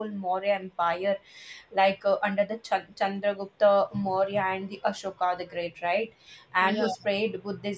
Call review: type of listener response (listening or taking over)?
listening